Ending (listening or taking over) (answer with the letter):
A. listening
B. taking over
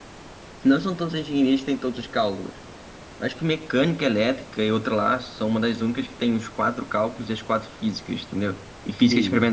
A